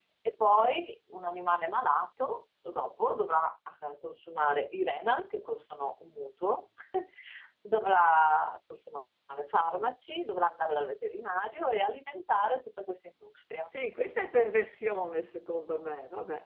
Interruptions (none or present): none